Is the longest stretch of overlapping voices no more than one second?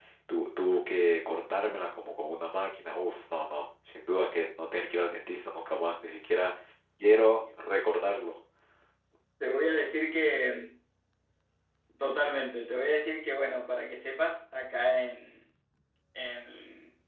Yes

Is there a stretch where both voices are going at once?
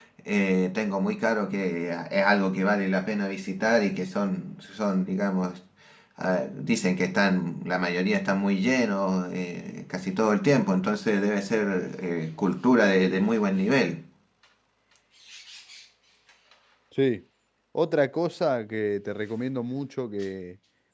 No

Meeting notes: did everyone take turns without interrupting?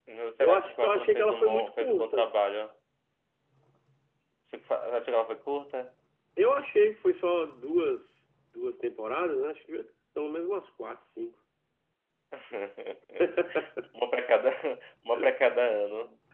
No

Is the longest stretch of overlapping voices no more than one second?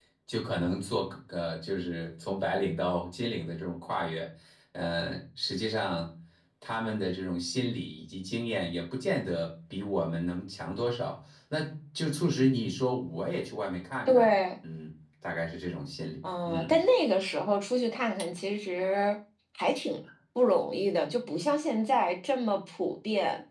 Yes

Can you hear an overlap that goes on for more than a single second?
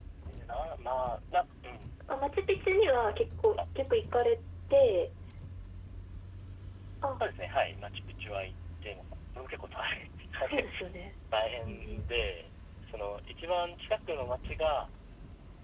No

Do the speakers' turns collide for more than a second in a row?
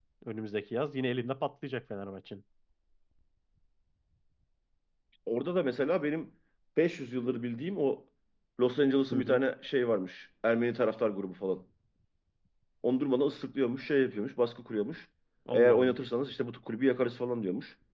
No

